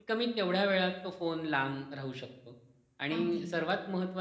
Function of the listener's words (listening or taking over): listening